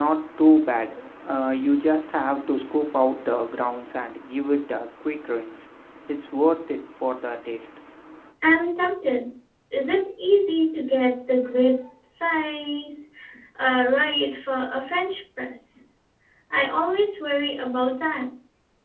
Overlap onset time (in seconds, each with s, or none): none